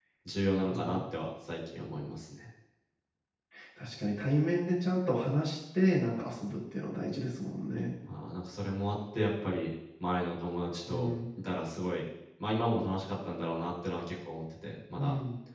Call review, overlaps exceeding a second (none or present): none